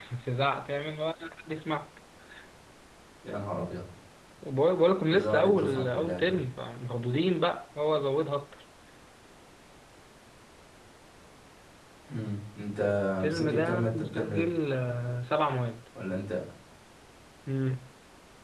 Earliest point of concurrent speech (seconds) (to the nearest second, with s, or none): 5 s